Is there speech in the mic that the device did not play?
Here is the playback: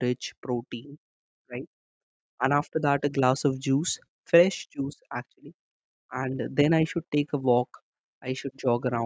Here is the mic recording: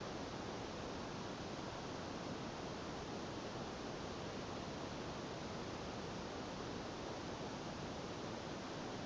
No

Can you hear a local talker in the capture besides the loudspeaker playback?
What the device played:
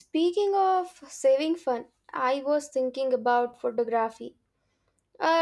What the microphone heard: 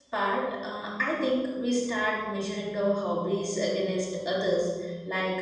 Yes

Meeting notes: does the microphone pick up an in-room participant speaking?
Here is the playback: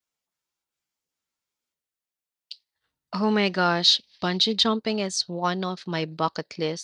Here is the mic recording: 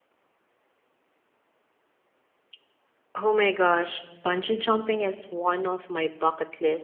No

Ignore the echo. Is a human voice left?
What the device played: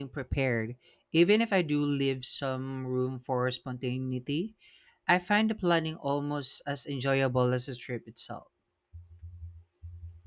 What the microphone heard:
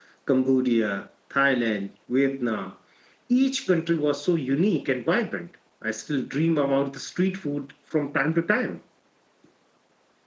Yes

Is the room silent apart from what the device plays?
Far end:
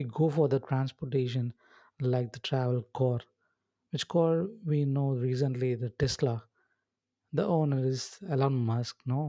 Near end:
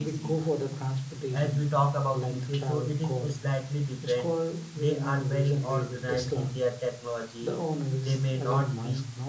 No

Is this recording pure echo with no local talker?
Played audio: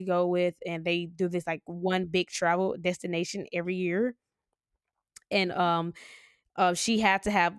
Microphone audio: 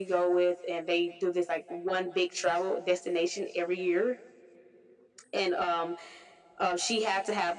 Yes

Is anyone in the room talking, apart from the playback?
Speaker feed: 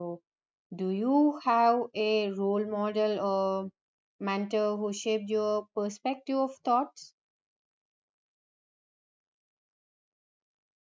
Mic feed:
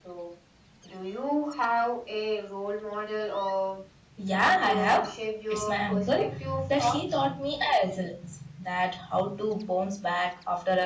Yes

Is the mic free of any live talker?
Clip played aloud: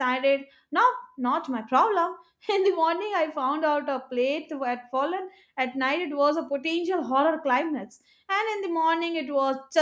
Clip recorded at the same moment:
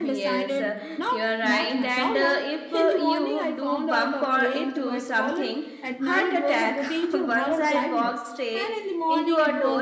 No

